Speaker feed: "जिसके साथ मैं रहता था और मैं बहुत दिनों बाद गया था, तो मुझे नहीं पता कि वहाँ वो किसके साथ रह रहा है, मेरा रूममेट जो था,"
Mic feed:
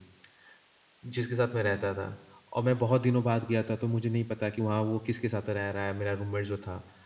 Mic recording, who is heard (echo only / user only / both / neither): echo only